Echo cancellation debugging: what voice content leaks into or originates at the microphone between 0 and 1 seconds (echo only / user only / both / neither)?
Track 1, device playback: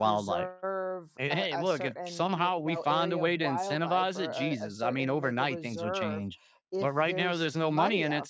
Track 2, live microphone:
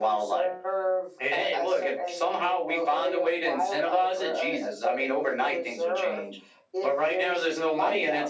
echo only